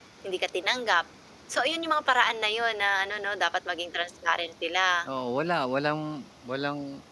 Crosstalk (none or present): none